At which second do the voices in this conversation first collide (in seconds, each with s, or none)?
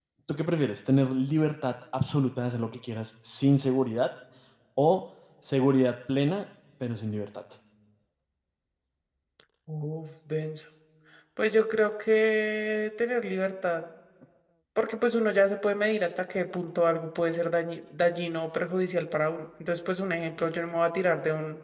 none